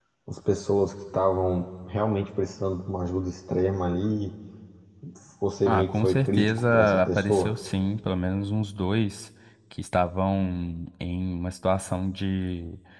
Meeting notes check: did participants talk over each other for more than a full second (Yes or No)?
Yes